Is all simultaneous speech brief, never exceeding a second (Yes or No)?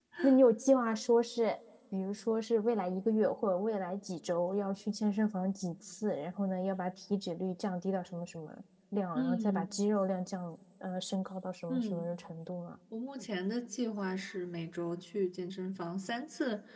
Yes